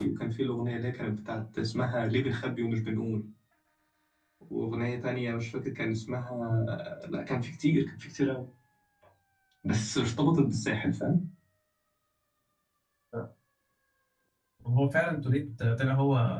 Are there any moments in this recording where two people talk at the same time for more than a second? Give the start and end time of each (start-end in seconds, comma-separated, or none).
none